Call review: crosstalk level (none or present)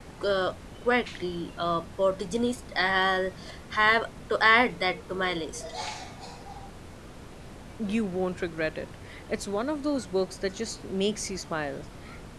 none